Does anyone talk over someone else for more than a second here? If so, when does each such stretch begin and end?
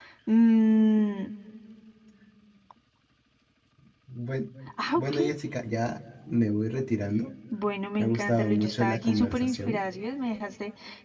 8.0-9.8

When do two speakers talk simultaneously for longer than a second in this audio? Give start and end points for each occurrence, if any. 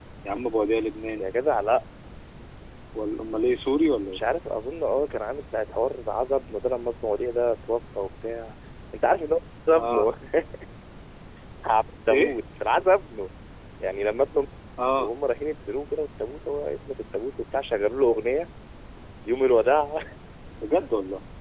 none

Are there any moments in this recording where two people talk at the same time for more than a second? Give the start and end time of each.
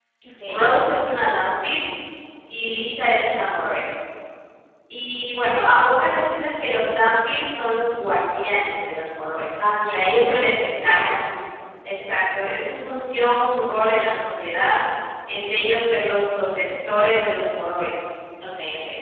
9.8-11.2

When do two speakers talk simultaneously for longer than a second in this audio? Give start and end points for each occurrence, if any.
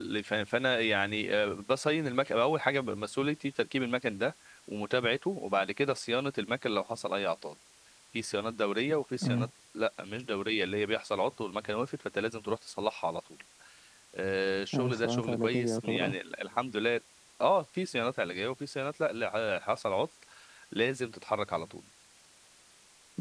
14.7-16.1

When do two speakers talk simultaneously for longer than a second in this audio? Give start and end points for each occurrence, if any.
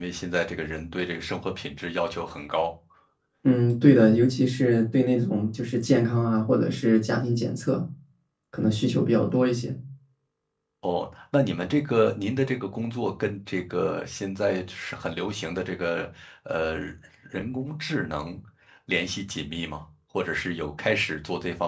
none

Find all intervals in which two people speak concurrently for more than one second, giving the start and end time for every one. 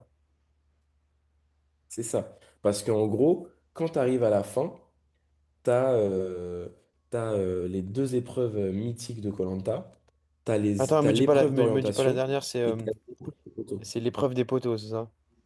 10.8-12.2

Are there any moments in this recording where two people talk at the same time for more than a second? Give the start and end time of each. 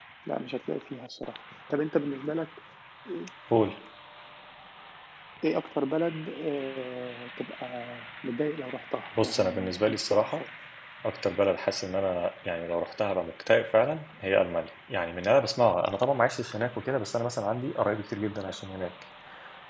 9.2-10.4

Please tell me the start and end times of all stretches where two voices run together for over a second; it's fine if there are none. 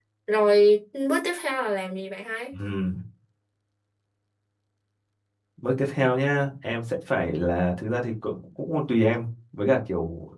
none

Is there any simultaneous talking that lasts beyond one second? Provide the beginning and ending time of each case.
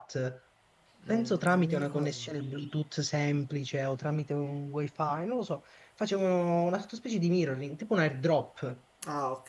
1.1-2.3

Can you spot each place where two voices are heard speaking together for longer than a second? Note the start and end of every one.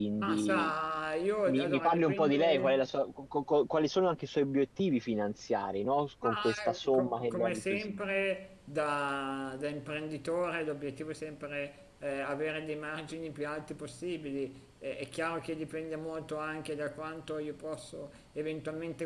1.5-2.8, 6.2-8.0

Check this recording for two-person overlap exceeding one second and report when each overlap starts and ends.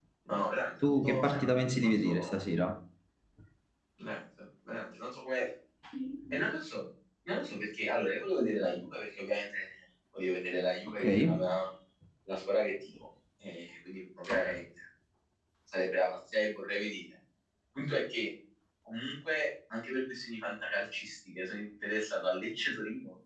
0.8-2.1

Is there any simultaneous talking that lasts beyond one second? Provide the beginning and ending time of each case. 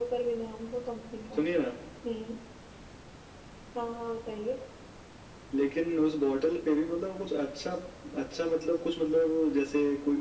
none

